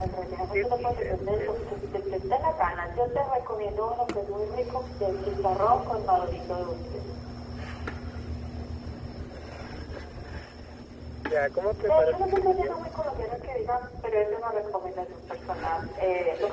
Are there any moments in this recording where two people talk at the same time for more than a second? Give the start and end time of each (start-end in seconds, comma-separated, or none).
0.5-1.9, 11.7-12.9